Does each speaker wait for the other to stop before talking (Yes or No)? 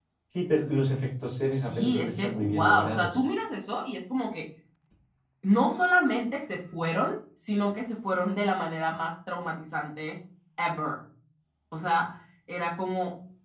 No